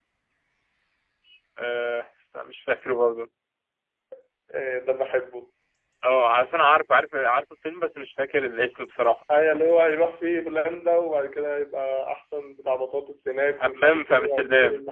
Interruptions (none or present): present